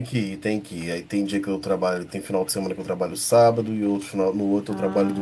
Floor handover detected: Yes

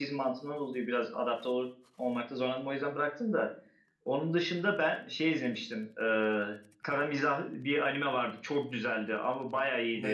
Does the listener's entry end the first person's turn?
No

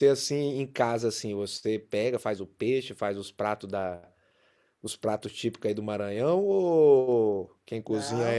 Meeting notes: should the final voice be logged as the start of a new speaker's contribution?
Yes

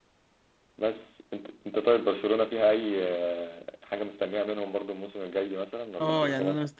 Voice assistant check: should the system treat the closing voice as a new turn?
Yes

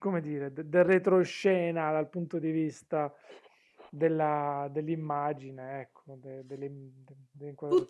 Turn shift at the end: Yes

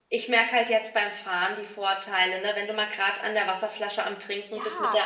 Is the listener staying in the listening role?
No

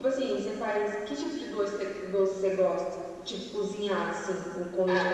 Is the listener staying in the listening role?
No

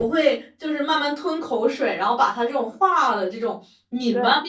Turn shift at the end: No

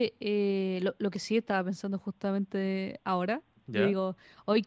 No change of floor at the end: Yes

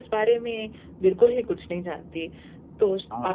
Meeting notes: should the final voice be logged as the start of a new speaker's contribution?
No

